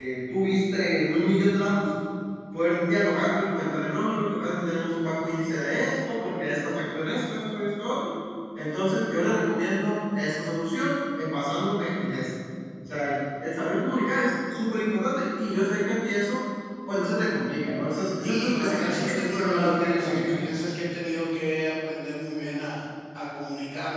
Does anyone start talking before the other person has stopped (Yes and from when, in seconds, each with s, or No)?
Yes, from 18.2 s